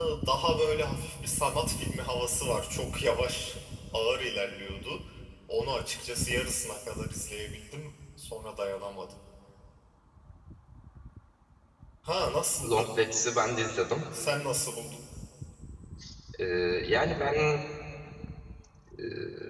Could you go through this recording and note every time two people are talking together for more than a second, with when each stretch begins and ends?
none

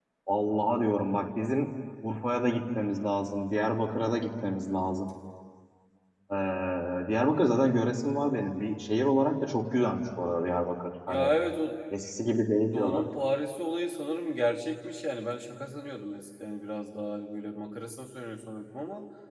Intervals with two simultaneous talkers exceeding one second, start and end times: none

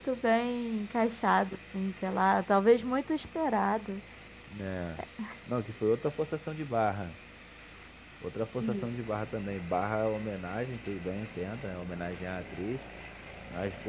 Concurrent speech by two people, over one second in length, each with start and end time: none

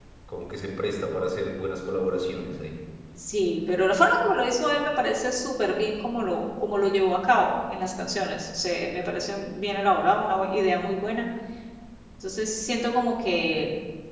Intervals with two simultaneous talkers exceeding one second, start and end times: none

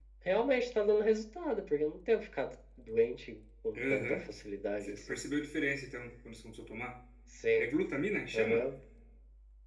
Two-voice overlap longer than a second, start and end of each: none

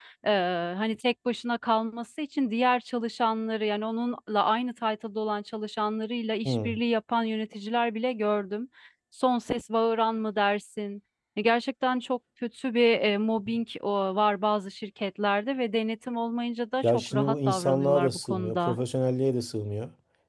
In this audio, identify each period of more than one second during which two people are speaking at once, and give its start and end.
16.8-18.8

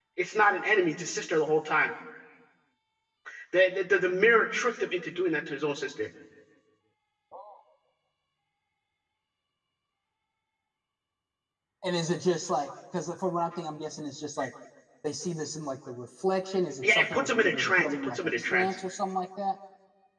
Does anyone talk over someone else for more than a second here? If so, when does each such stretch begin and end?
16.8-18.8

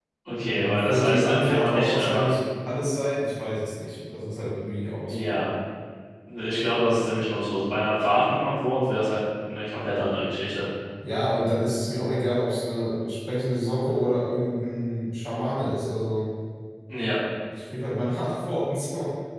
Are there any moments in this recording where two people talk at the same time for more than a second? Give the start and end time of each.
0.5-2.3

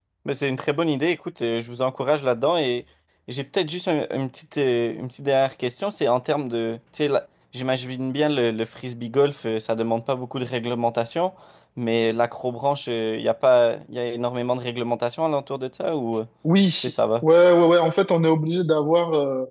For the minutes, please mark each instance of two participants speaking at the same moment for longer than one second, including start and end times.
none

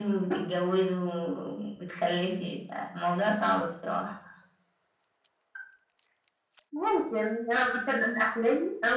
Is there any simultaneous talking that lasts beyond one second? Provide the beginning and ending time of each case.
none

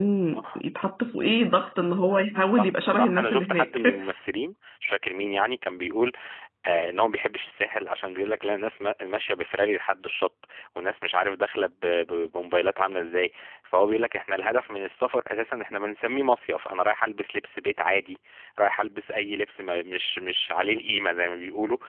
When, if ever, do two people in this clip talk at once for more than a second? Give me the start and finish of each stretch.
2.5-3.8

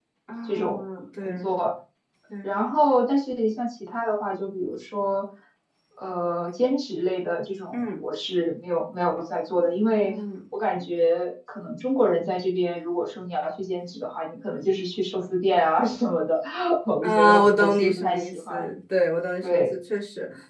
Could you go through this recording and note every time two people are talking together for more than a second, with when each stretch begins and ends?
17.0-18.6

